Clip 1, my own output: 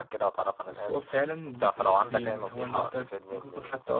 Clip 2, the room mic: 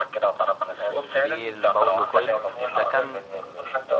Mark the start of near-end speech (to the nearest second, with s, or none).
1 s